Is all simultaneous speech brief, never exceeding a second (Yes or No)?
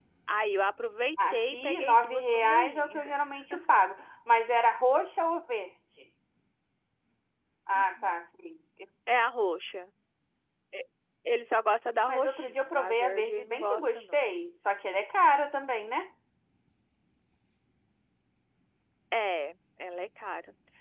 No